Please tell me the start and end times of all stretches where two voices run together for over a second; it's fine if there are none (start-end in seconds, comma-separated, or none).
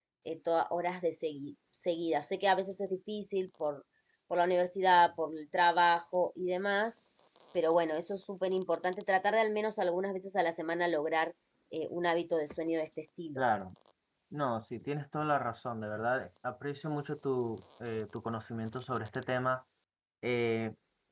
none